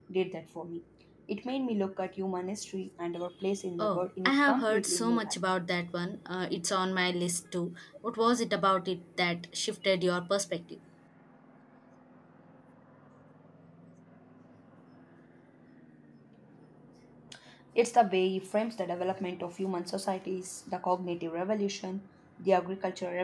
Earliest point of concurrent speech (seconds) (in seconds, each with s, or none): 3.8 s